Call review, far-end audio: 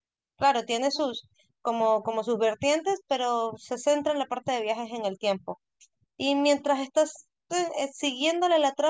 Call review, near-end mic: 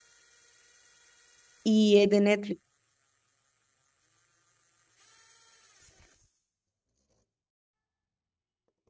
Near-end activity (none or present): present